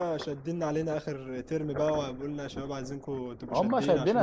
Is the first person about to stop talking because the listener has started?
Yes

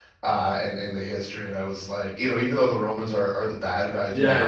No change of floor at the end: No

